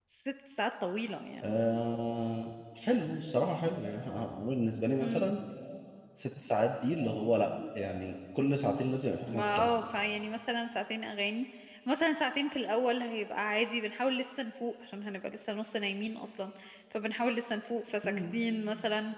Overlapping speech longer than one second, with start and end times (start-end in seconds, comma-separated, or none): none